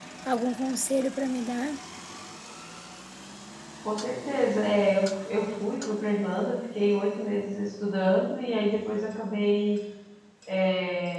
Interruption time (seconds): none

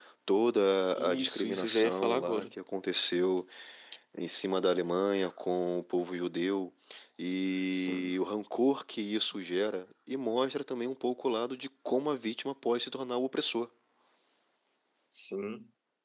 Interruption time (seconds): 1.0 s

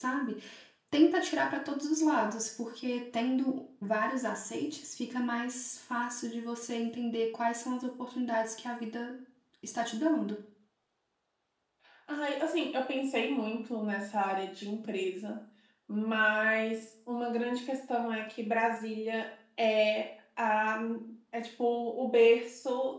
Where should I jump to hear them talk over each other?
none

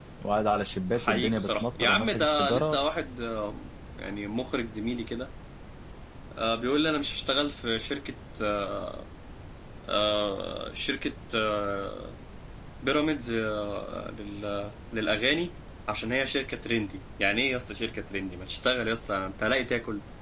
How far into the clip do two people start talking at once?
1.0 s

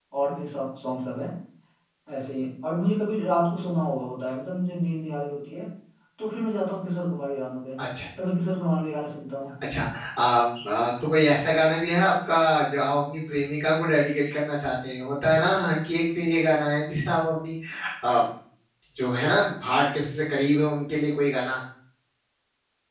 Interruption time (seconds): none

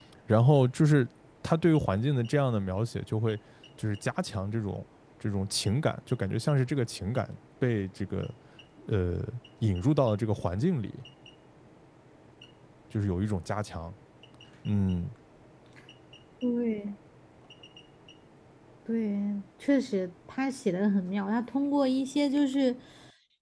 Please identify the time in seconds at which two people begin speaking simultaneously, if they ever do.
none

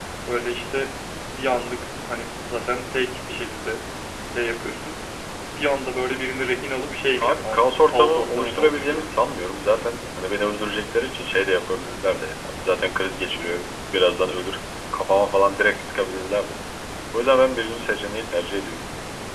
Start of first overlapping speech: 7.2 s

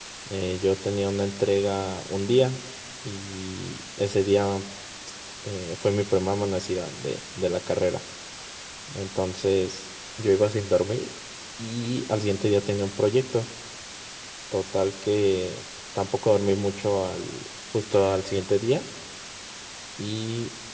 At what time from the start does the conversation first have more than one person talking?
none

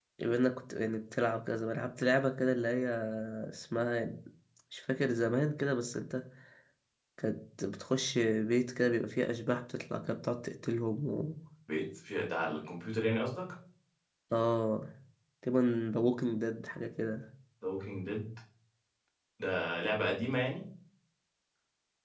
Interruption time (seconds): none

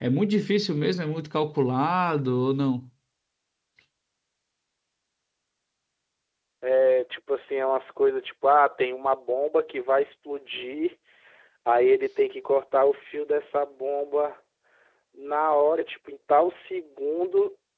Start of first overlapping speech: none

